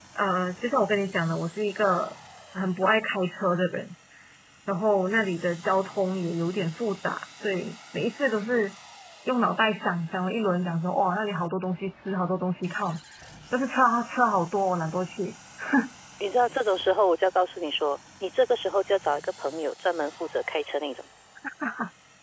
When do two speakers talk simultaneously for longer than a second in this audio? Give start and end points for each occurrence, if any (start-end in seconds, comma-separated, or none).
none